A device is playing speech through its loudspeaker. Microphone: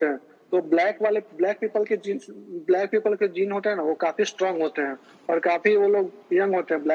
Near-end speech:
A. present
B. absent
B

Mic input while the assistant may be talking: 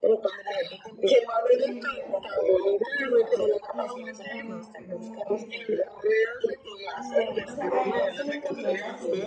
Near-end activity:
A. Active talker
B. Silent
A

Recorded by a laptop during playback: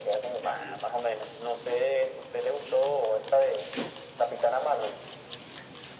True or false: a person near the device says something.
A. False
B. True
A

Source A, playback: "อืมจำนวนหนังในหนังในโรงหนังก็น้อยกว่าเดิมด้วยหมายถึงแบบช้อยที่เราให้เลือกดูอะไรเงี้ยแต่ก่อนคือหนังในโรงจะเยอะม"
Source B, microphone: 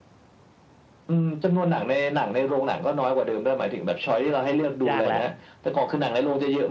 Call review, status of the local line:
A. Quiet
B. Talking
B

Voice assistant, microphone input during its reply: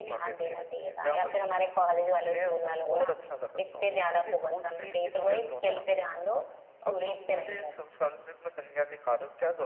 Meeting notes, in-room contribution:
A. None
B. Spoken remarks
A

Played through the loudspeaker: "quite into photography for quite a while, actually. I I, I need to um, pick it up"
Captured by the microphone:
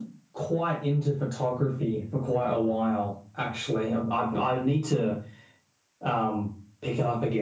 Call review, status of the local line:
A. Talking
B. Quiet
B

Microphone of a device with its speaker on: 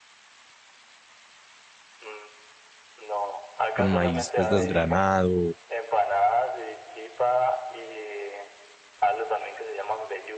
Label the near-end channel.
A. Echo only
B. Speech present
B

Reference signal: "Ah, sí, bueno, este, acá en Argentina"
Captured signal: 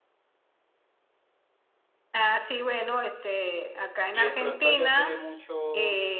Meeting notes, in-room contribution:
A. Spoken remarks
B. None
A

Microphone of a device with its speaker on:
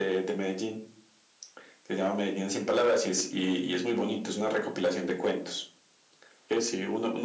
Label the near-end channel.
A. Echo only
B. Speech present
A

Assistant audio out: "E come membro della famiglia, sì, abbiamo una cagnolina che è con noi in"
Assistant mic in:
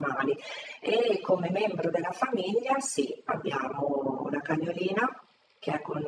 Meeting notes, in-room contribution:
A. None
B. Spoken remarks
A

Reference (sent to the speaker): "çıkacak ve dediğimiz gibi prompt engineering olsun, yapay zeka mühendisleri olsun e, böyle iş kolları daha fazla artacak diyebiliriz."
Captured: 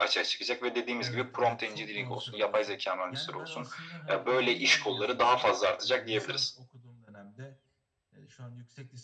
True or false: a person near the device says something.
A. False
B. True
B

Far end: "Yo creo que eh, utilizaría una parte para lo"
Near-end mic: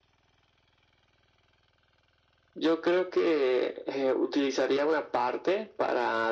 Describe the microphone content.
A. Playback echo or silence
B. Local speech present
A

